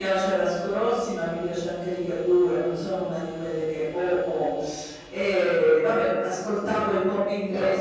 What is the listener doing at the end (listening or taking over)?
listening